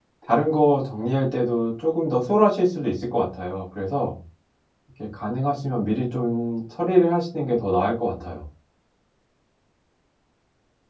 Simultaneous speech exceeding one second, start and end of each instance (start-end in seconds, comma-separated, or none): none